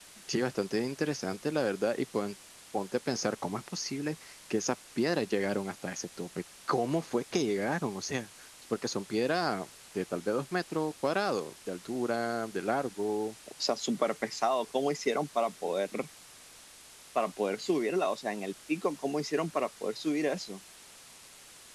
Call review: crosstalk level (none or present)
none